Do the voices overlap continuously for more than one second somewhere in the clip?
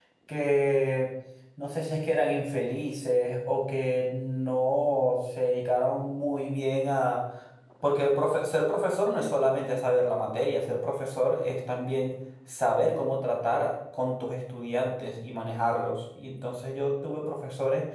No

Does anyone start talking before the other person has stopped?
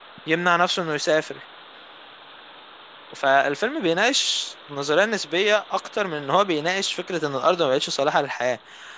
No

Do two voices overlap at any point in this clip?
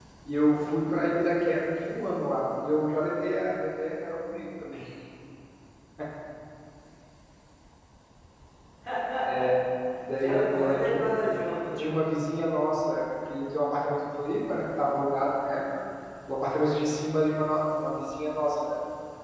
Yes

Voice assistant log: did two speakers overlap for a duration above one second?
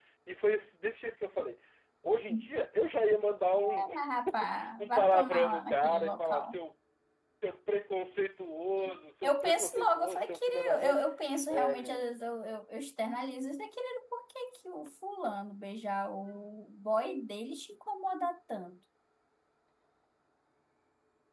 Yes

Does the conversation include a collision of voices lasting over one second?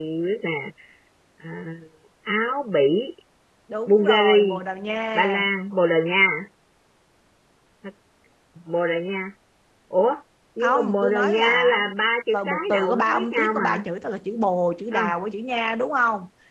Yes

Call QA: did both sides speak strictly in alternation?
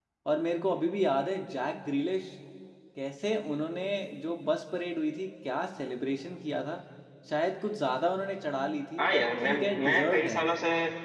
No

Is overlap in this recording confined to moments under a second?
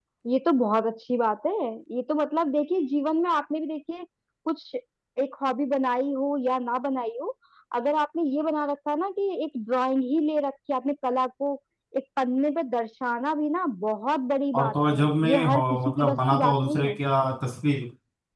No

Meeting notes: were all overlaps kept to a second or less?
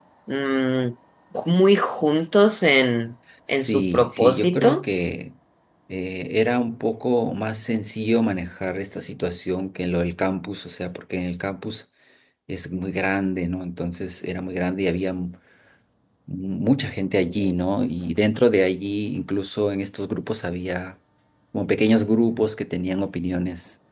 No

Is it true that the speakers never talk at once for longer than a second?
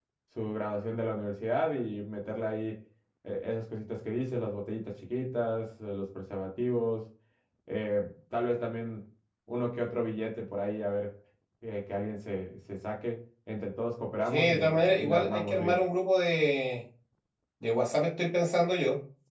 No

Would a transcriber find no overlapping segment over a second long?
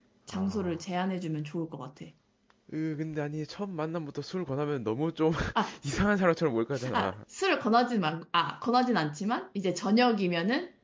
Yes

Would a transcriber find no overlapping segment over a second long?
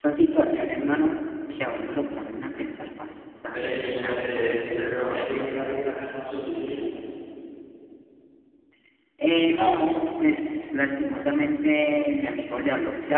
No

